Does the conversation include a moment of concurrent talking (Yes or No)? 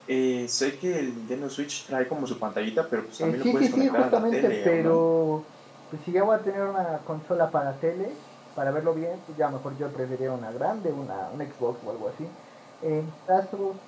Yes